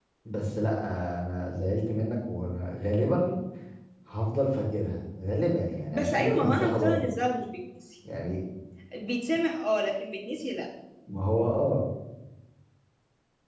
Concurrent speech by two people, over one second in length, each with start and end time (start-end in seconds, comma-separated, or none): 5.9-7.1